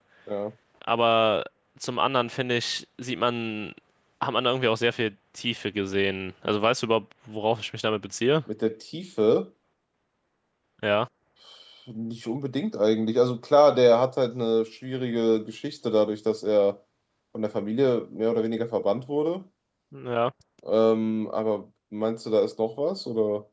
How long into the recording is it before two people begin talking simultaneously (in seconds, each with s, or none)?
none